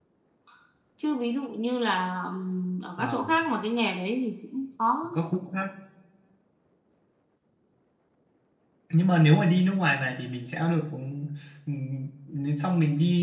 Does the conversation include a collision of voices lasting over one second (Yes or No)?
No